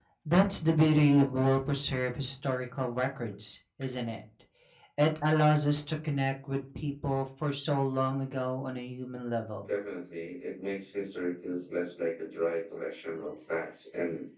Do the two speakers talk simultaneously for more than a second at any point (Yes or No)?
No